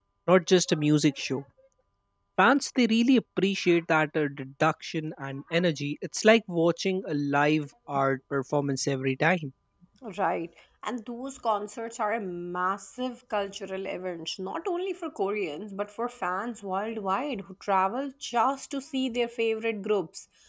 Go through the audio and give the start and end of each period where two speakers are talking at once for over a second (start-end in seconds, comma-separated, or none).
none